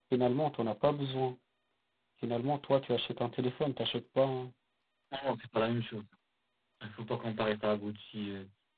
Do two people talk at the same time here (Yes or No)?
No